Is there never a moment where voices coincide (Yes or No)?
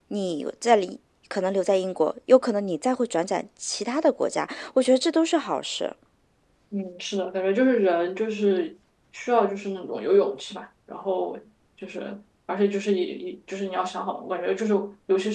Yes